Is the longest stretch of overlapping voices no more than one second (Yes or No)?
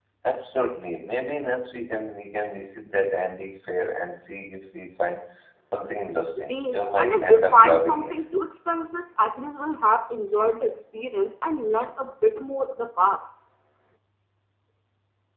No